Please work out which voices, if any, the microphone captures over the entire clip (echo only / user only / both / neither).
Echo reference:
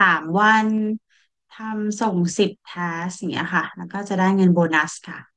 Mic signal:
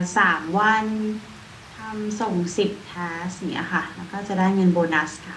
echo only